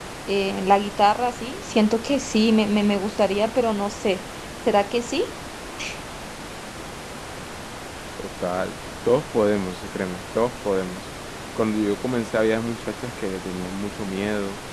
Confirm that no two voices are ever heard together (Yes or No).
Yes